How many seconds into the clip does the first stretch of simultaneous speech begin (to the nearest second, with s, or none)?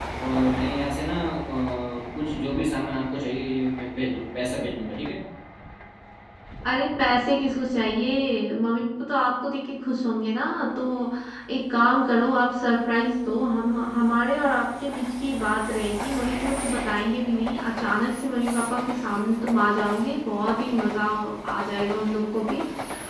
none